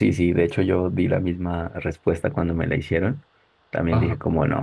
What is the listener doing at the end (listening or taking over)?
listening